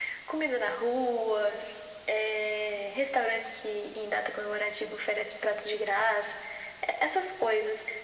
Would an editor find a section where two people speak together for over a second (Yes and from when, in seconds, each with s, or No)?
No